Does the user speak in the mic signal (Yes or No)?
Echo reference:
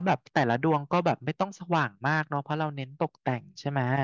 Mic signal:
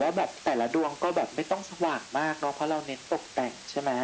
No